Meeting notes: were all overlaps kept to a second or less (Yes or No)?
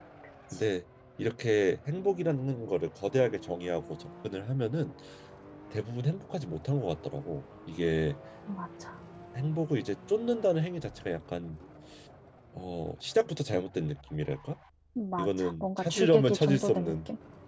No